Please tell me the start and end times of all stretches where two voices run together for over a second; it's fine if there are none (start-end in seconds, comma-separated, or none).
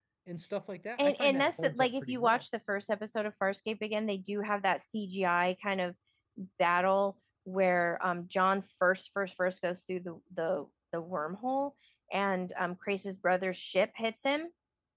1.0-2.4